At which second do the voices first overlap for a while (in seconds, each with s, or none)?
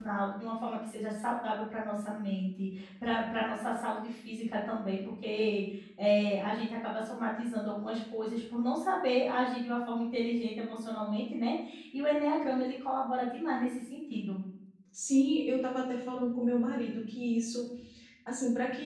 none